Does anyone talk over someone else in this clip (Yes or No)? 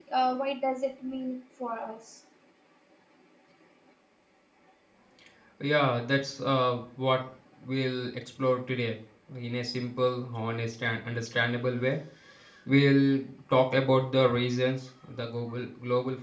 No